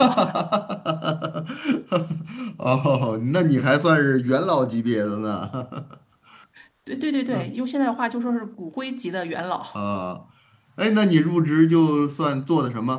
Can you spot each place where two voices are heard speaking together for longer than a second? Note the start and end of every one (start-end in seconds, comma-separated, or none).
none